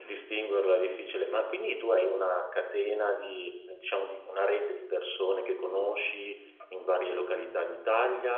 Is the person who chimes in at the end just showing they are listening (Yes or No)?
No